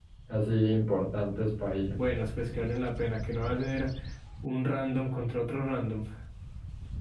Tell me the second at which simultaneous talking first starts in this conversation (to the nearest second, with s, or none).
none